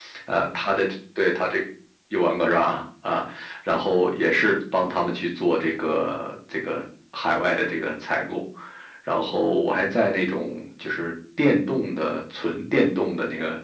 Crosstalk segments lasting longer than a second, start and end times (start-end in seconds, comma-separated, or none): none